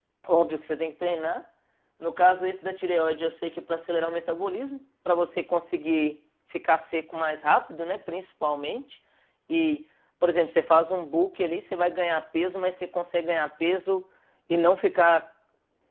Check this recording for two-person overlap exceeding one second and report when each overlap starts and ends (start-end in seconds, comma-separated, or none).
none